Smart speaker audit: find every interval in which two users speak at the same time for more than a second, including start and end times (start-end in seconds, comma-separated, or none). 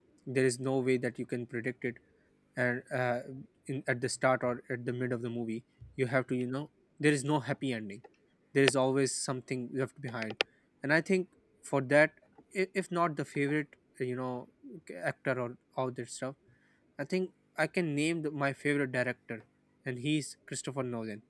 none